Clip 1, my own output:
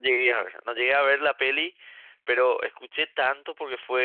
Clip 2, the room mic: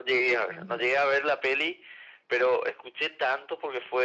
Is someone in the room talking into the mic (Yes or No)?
Yes